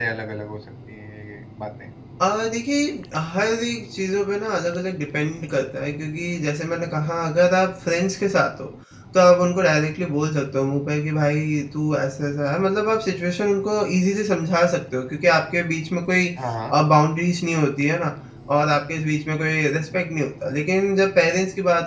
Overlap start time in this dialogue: none

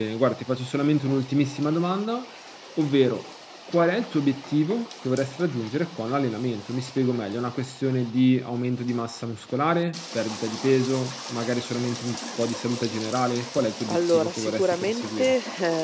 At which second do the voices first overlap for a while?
13.9 s

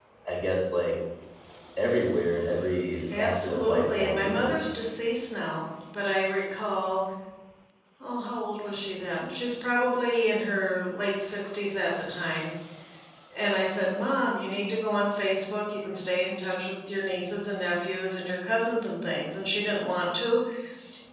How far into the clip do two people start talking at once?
3.2 s

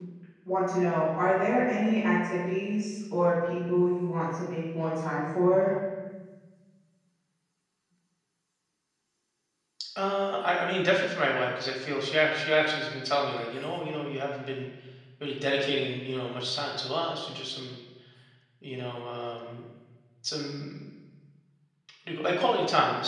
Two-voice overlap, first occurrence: none

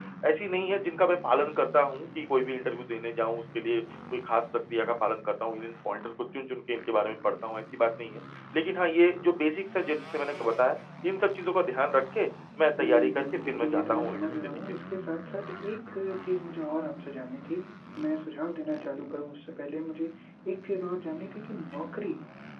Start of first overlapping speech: 12.8 s

